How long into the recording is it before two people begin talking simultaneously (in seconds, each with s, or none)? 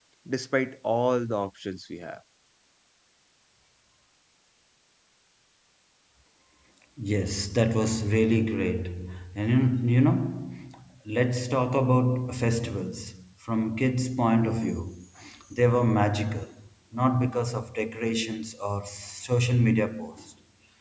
none